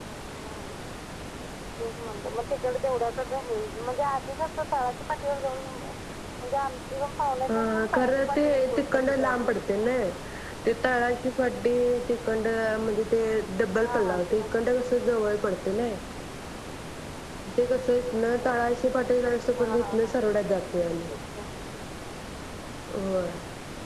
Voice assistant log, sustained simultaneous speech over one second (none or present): present